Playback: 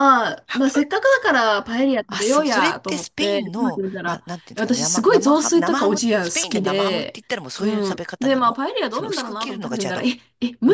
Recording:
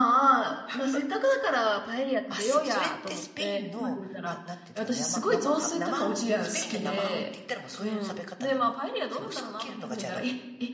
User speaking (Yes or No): No